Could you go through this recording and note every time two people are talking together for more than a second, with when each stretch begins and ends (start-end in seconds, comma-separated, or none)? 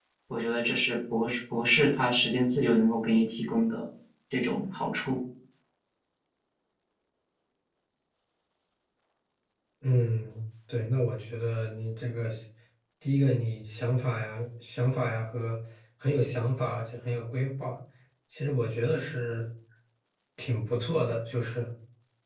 none